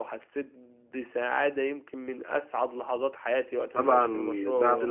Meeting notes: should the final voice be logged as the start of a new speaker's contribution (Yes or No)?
Yes